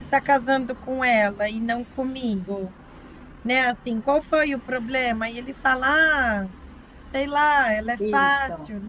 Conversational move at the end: listening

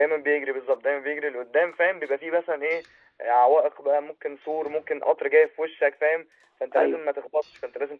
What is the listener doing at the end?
listening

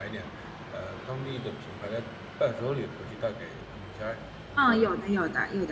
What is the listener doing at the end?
taking over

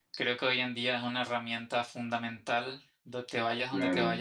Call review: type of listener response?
taking over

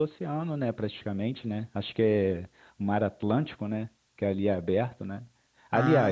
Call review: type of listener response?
listening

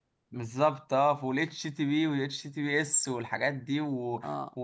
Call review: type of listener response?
listening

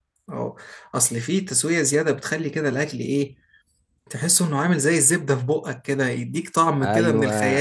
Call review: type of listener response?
taking over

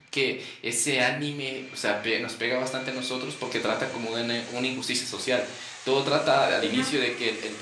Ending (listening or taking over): listening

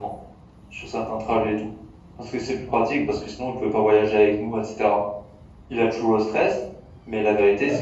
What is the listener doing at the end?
listening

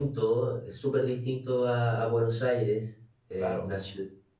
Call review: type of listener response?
listening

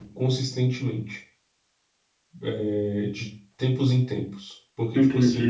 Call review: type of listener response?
taking over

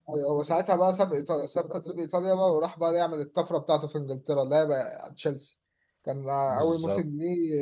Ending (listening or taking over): listening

